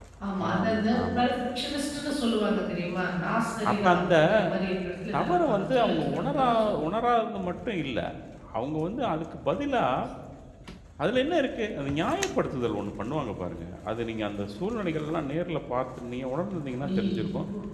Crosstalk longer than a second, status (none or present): present